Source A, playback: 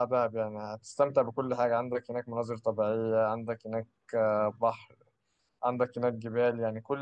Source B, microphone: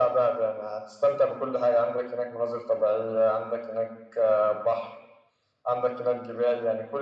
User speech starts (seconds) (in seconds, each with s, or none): none